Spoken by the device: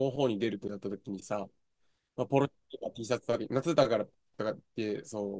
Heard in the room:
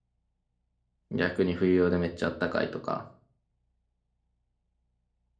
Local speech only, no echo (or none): 逆に冬用でめっちゃ暖かいとか、